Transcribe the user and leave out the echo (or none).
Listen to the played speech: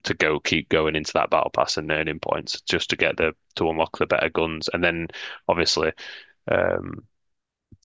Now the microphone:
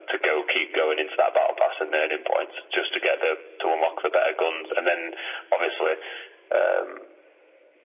none